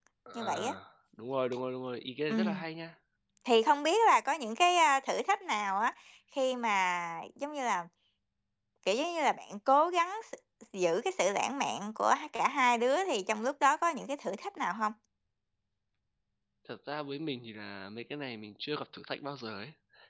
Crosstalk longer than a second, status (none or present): none